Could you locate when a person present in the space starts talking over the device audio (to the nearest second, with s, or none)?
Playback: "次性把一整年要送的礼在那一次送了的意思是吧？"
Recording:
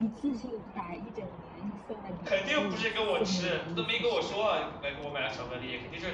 2 s